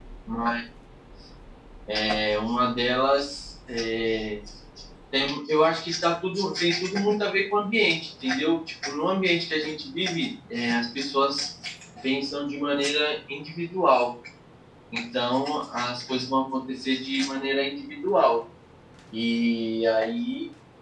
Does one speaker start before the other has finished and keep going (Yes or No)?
No